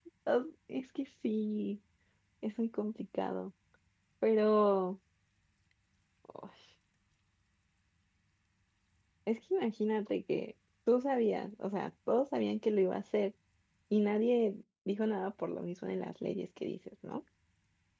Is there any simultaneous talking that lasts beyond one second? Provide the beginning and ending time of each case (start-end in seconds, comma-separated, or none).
none